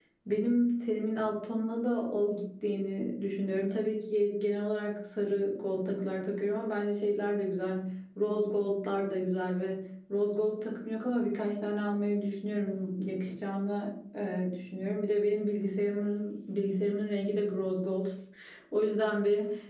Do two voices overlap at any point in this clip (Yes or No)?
No